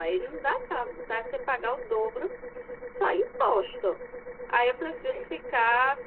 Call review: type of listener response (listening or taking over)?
listening